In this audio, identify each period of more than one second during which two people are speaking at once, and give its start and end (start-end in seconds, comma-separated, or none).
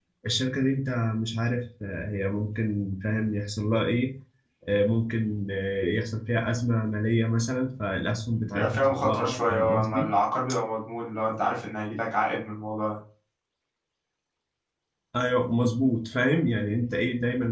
8.5-10.1